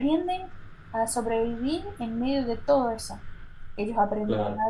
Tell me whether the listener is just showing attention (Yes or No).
Yes